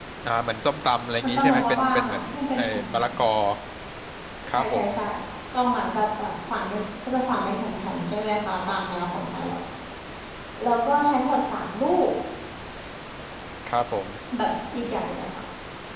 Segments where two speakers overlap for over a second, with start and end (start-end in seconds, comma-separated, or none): 1.2-3.1